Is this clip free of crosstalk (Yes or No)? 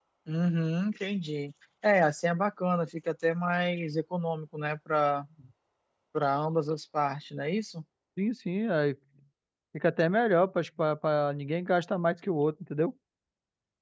Yes